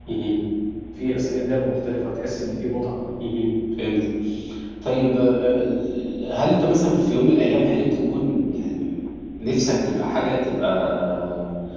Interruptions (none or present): none